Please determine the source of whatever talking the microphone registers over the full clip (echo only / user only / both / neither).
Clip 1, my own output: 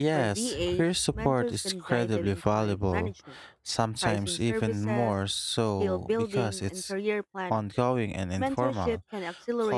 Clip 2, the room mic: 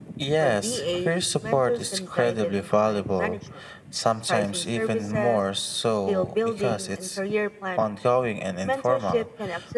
echo only